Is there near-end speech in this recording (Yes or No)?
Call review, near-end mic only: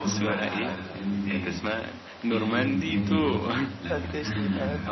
Yes